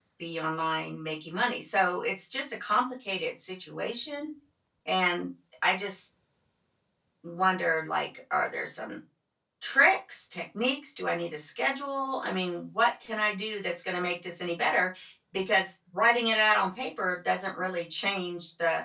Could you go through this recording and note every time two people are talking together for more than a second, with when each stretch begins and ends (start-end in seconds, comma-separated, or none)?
none